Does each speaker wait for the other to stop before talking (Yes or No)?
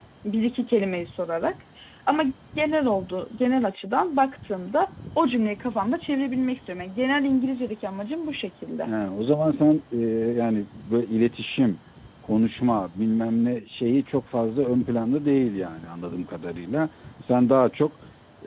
Yes